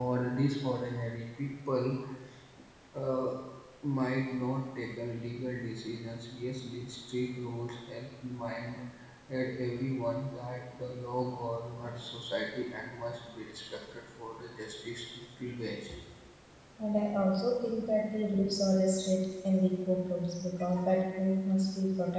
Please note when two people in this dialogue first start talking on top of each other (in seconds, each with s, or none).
none